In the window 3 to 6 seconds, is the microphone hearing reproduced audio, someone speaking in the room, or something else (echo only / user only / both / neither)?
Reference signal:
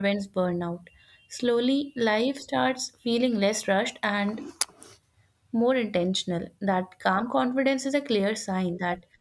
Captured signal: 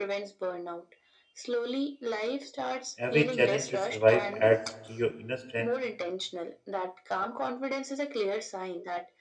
both